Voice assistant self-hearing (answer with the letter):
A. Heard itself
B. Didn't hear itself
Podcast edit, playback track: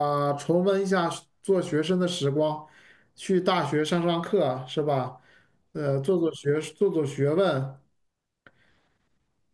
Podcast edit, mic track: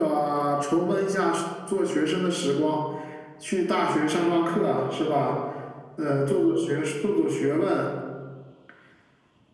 A